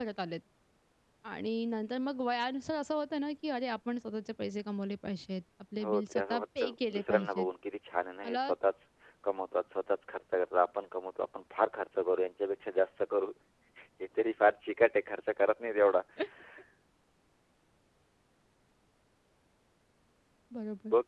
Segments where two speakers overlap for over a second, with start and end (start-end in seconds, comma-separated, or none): 5.8-7.5